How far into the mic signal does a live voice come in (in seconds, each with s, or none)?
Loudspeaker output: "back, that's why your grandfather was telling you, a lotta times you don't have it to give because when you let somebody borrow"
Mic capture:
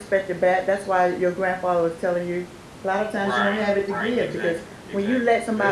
3.1 s